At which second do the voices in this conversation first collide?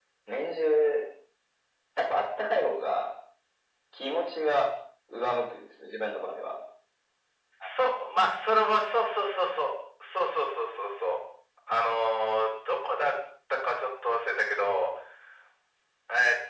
none

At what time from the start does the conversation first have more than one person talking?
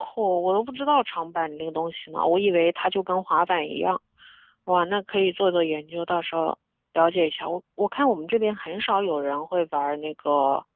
none

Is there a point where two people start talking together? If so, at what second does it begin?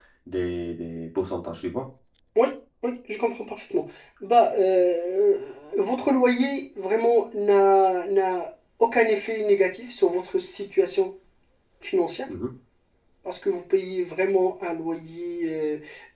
none

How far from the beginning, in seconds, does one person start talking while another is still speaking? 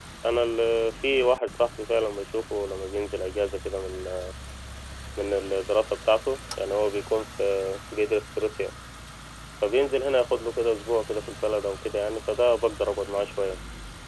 none

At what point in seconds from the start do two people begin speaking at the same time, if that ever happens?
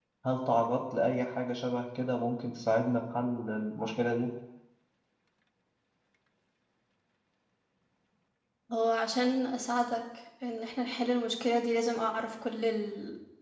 none

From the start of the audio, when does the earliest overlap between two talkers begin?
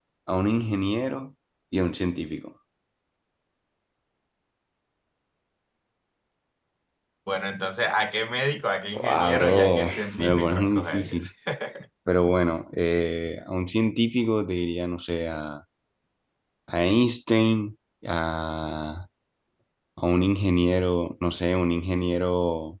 8.9 s

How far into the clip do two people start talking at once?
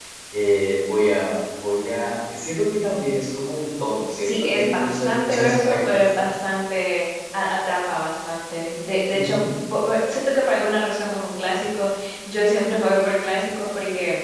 4.2 s

